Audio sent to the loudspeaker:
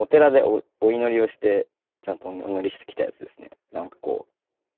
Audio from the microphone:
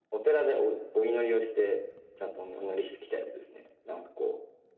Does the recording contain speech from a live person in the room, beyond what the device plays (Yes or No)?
No